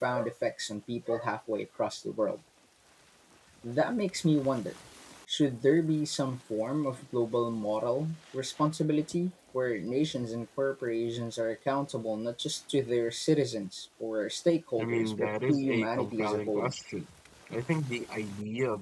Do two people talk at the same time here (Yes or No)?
Yes